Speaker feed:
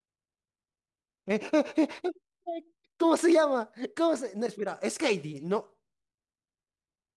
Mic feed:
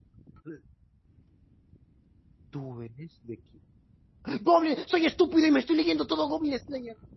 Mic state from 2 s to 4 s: user only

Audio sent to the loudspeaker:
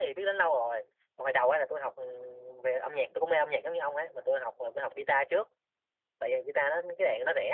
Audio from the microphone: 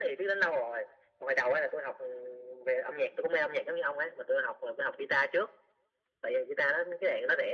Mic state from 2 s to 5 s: echo only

